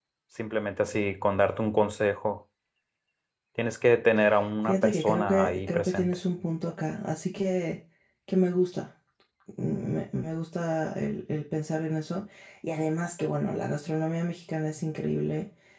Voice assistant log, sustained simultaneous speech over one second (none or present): present